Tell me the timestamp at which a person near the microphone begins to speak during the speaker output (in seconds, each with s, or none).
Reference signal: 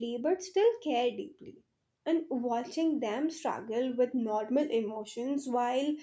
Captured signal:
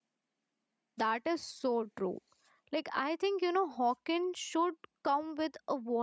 1.0 s